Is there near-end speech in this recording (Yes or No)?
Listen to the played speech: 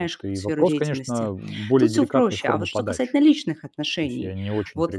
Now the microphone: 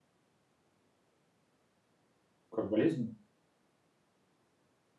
Yes